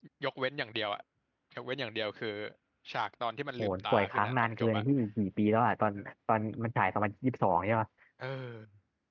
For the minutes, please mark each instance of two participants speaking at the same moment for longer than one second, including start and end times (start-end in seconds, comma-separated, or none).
3.6-4.8